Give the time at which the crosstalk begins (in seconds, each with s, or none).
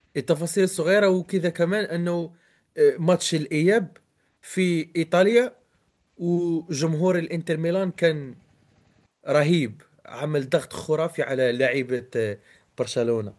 none